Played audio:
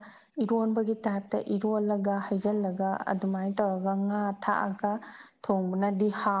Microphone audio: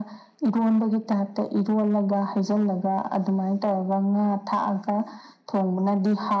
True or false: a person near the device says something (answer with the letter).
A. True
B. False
B